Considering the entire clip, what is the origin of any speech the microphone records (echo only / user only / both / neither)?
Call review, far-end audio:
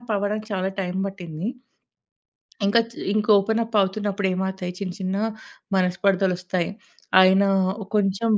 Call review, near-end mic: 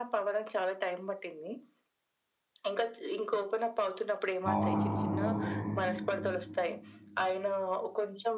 both